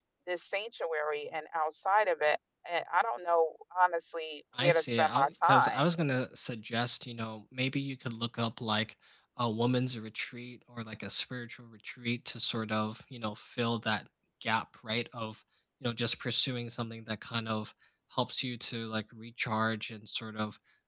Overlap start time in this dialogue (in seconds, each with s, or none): 4.5 s